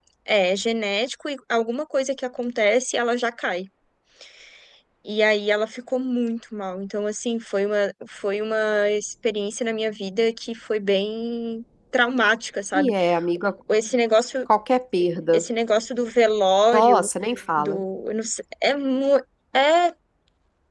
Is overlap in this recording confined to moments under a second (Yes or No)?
Yes